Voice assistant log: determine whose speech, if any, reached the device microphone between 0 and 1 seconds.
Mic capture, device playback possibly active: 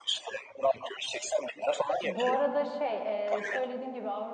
echo only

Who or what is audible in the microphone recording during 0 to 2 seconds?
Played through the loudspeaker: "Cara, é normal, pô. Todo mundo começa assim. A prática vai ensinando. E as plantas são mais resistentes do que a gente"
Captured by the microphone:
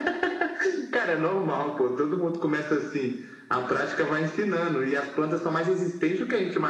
echo only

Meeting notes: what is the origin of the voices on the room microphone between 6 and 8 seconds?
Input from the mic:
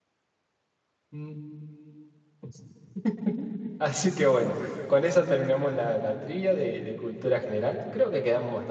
user only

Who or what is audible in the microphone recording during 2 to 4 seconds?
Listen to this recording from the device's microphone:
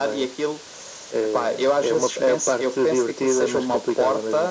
echo only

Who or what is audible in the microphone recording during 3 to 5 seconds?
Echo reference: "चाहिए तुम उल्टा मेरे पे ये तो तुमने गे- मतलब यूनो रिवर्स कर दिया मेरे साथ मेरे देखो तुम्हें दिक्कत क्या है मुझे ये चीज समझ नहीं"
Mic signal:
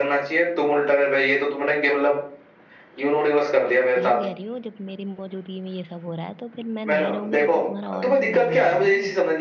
both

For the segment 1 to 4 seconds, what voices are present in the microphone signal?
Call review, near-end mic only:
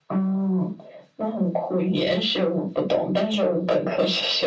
echo only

